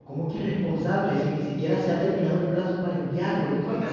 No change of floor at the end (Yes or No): No